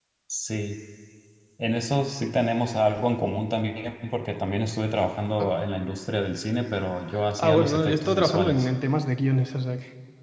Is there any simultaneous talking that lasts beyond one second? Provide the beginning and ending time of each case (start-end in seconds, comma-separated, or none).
7.4-8.7